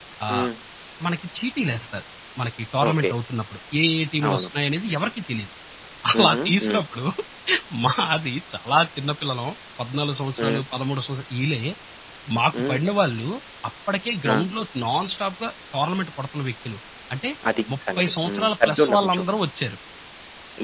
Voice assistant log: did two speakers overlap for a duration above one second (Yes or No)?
Yes